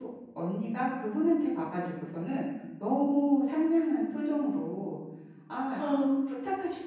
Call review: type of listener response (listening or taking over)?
listening